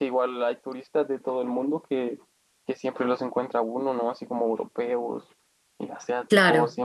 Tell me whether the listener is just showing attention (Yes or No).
Yes